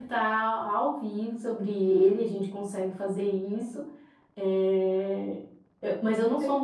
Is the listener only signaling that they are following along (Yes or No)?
Yes